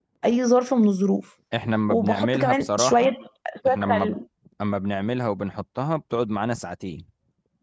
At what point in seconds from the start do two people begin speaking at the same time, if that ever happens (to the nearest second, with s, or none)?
2 s